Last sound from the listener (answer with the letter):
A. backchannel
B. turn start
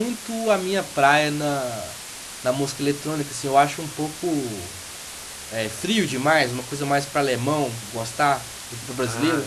B